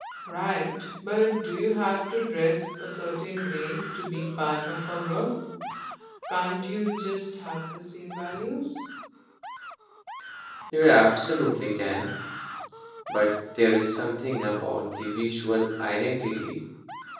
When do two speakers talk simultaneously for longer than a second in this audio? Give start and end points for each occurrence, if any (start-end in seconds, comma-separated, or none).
none